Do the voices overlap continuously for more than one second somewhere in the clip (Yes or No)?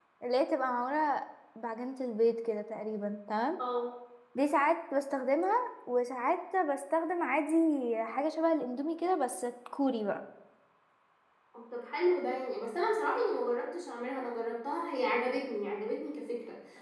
No